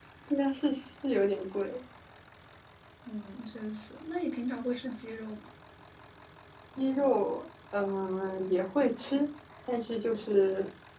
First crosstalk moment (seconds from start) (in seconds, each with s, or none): none